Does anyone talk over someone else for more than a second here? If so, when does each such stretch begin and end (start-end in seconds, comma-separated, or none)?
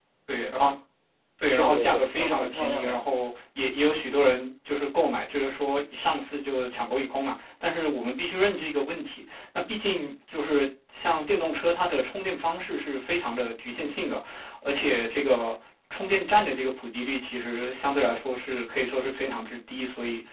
1.6-3.0